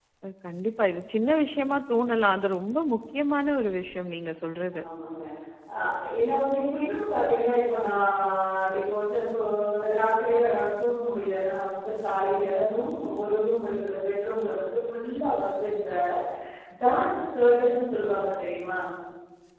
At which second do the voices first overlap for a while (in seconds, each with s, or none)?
none